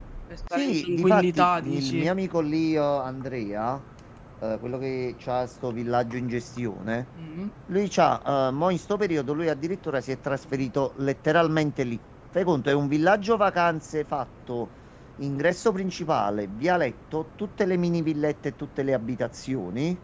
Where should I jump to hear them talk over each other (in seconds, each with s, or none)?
0.5 s